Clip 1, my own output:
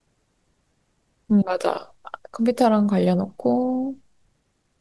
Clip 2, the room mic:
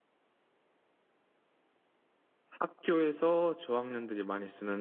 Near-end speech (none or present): present